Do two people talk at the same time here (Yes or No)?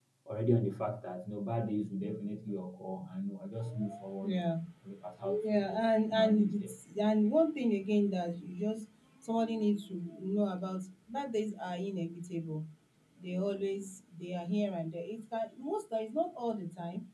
Yes